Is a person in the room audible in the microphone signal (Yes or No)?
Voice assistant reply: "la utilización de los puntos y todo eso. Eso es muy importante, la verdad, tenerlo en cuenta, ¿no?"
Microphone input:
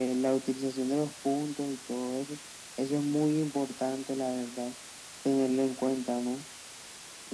No